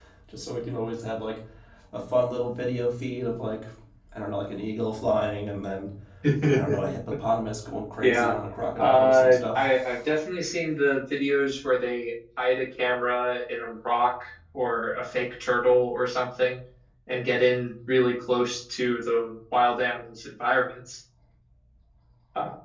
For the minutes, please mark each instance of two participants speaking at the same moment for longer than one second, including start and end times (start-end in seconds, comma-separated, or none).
8.8-10.0